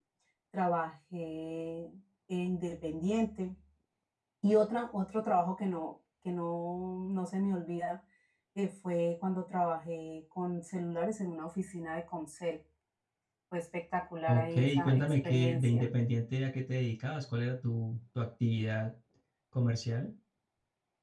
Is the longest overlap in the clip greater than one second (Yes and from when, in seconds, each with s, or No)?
Yes, from 14.3 s